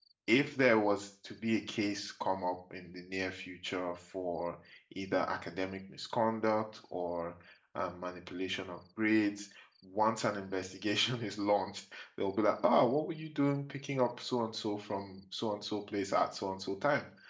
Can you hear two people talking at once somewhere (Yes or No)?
No